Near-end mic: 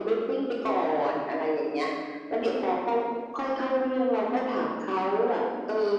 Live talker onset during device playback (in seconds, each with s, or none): none